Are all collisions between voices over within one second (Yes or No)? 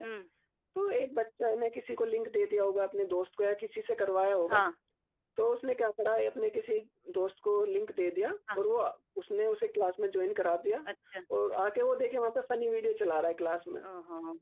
Yes